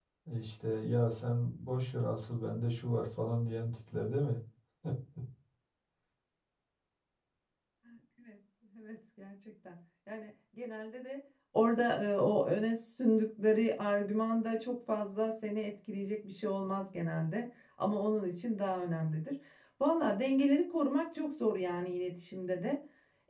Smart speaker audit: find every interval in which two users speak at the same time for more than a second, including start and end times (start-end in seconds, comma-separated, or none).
none